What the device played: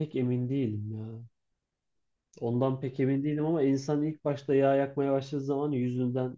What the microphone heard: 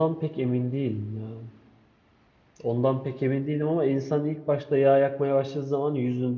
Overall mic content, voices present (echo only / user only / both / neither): echo only